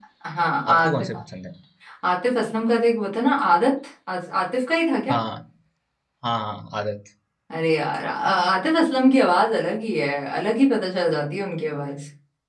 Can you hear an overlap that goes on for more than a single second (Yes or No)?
No